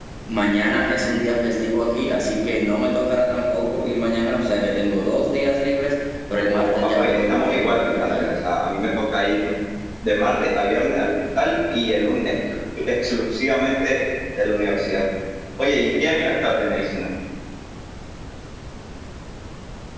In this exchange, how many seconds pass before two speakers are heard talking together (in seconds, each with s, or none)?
6.4 s